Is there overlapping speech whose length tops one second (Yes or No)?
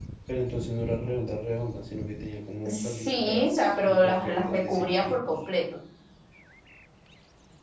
Yes